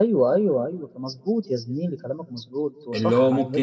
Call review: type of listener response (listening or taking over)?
taking over